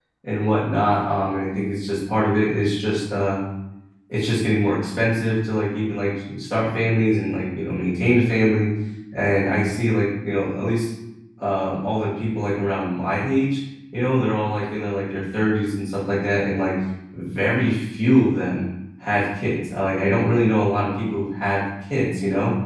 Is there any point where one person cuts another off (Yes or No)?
No